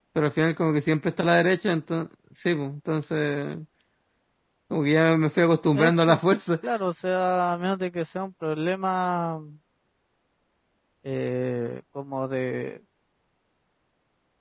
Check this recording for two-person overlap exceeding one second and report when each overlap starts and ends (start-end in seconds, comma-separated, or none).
none